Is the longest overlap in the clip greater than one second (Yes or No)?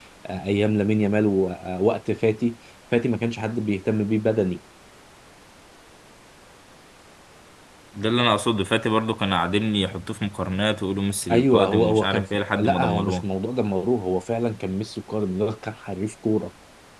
Yes